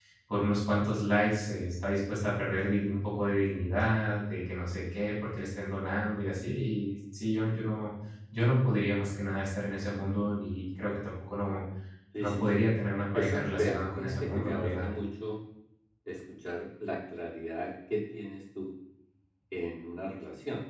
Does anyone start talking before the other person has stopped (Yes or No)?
Yes